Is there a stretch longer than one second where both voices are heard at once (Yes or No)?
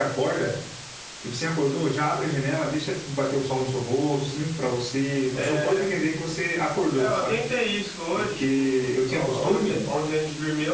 Yes